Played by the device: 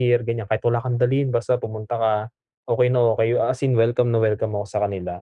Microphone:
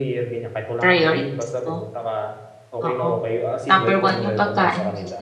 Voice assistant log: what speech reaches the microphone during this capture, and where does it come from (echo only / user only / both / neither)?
both